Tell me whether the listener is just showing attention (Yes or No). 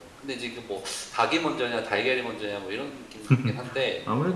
No